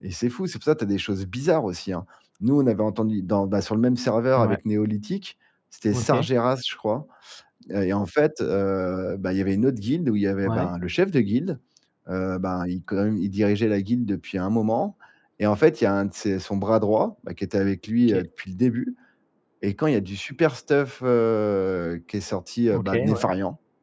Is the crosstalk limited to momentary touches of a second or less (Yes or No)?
Yes